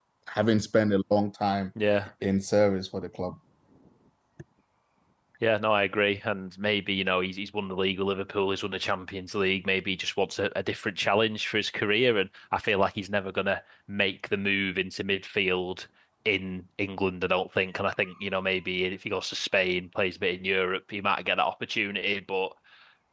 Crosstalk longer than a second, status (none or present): none